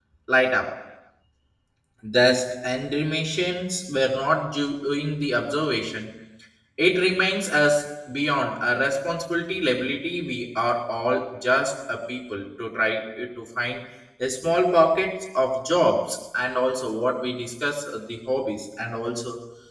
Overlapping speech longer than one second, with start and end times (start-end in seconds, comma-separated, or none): none